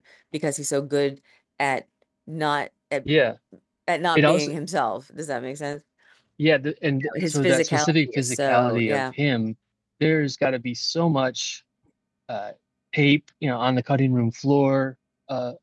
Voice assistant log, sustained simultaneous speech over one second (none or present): present